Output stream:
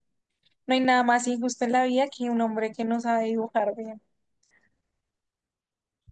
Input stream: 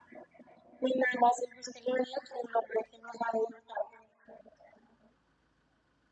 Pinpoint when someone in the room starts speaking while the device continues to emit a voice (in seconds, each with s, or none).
none